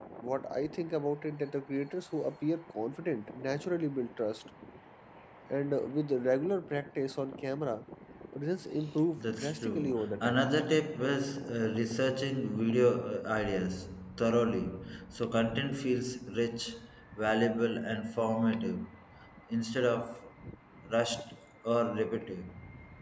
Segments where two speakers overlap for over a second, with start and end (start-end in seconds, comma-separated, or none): 9.2-10.5